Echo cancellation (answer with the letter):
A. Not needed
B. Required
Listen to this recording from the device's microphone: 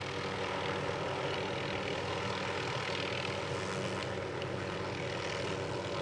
A